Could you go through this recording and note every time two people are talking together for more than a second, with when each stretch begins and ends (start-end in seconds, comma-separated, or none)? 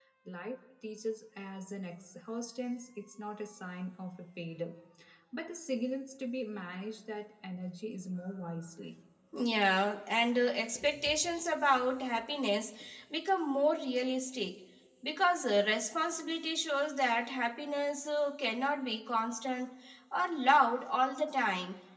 none